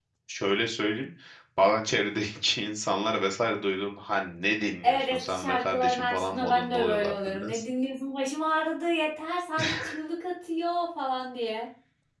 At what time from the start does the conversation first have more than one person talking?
4.8 s

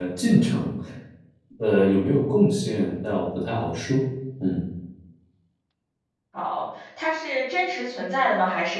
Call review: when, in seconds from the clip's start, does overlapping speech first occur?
none

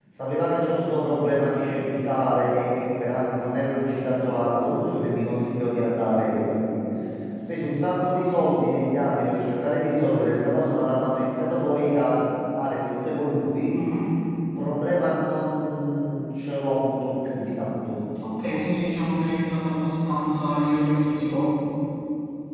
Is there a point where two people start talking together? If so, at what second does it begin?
none

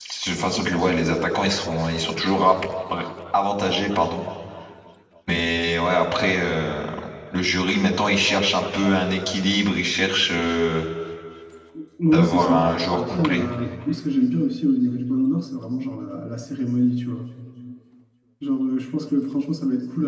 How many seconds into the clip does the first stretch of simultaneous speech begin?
12.1 s

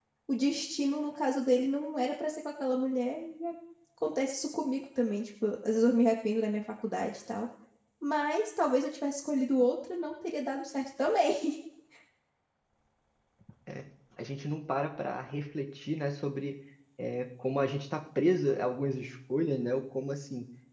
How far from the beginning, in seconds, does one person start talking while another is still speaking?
none

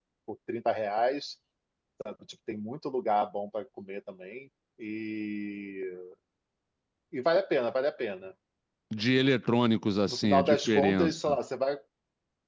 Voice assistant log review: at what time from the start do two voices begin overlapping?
10.1 s

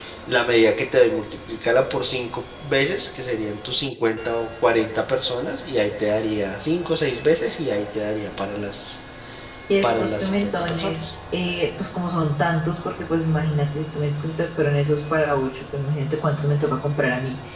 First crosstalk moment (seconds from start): 9.8 s

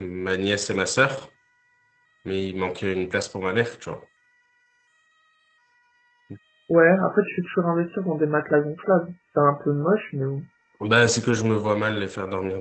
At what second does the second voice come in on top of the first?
none

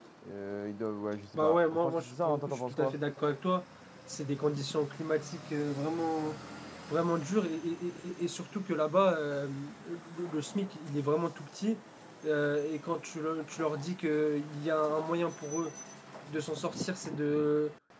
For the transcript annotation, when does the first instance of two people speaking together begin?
1.4 s

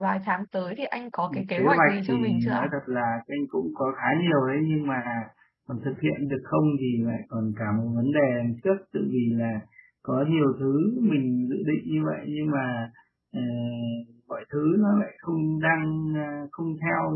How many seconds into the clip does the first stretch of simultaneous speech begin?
1.3 s

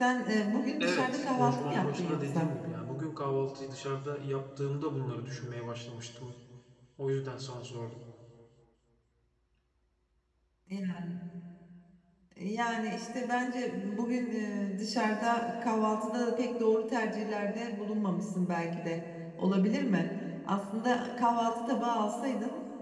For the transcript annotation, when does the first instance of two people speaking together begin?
0.8 s

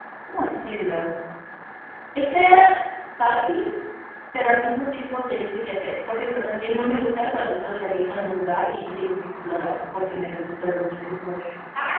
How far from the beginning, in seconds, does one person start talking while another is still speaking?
none

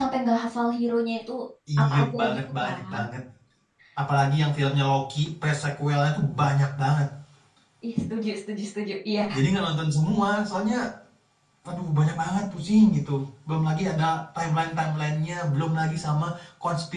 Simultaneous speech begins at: 1.8 s

